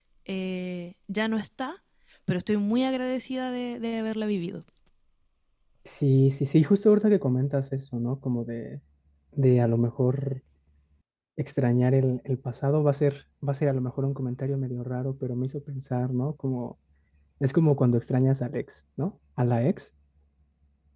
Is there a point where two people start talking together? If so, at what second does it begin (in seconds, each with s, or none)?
none